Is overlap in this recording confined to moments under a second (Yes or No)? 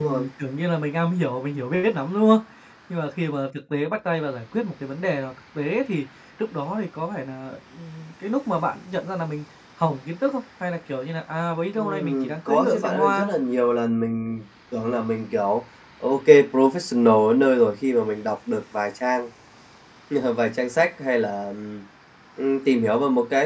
No